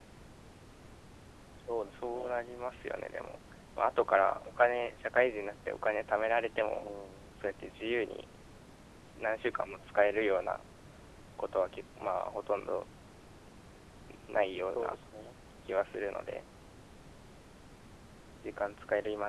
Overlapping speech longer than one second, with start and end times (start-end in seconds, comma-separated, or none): none